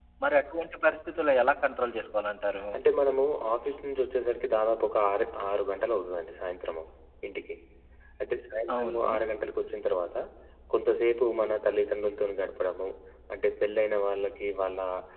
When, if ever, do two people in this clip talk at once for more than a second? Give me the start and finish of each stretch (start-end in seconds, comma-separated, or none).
none